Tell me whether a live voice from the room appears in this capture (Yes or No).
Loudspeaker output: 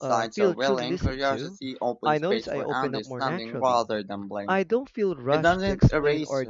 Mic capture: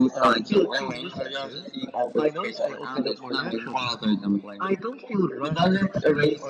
No